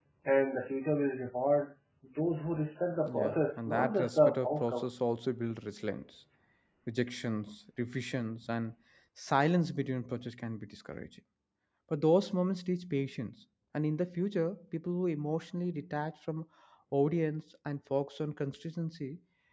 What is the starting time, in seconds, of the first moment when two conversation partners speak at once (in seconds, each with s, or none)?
3.1 s